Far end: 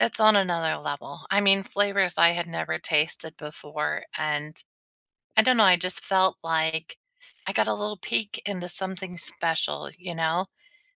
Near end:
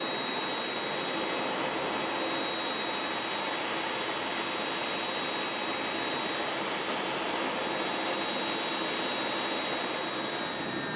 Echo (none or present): none